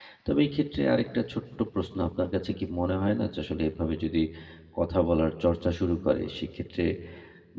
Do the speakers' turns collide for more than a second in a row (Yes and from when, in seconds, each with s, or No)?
No